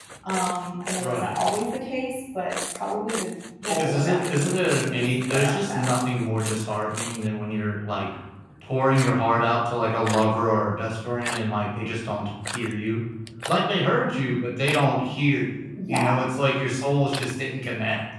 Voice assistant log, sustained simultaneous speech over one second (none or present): present